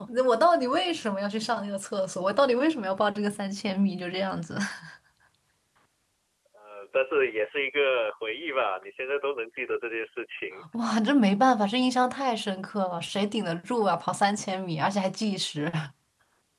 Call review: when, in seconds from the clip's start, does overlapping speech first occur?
none

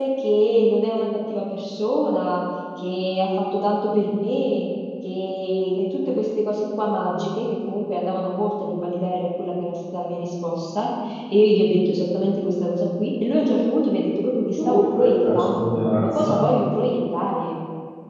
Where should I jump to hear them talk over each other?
14.6 s

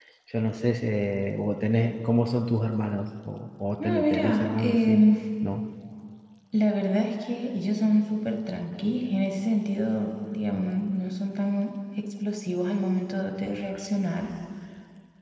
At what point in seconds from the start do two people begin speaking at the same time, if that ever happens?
3.8 s

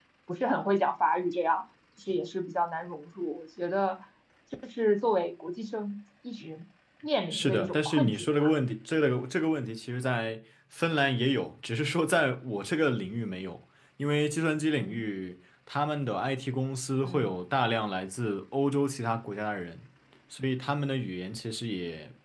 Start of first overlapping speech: 7.3 s

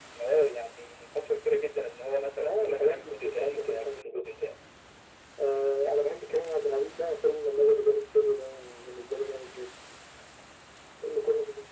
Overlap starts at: 2.4 s

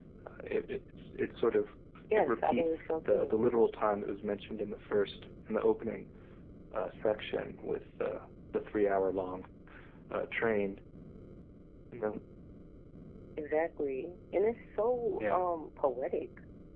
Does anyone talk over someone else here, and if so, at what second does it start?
2.2 s

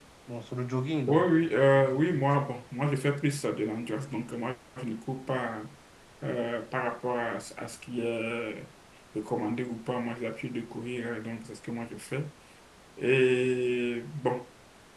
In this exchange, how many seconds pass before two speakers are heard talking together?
1.1 s

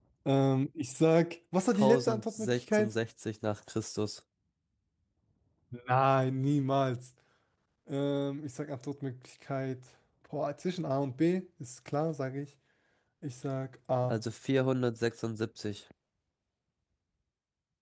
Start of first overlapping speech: 1.7 s

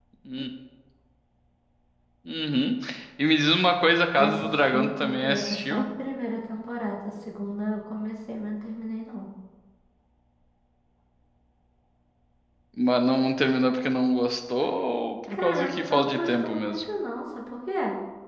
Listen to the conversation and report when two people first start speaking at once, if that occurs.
4.2 s

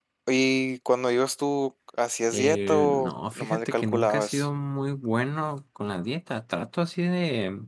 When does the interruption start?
2.3 s

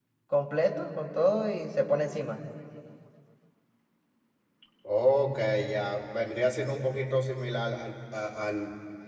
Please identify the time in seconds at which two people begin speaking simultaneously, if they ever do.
none

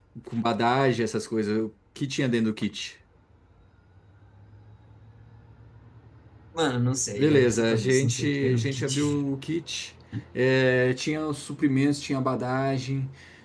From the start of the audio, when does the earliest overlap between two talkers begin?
7.2 s

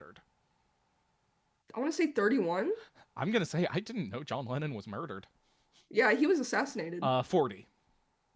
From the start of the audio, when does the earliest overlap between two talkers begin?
none

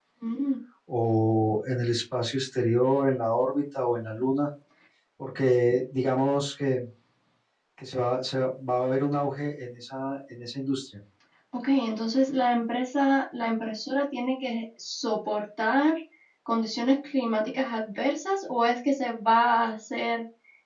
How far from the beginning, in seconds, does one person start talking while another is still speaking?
none

